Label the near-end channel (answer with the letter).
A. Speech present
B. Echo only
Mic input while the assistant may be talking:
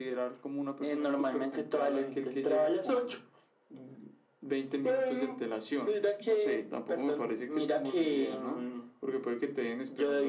B